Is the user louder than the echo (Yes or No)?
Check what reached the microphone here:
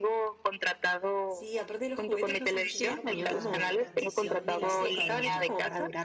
No